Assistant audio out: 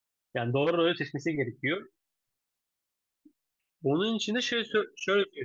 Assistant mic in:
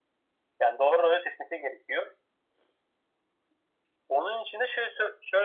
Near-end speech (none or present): none